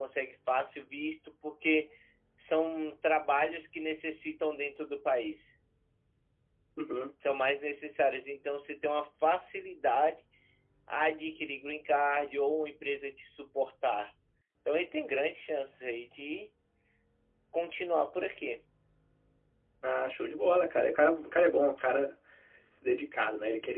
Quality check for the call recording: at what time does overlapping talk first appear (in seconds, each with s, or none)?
none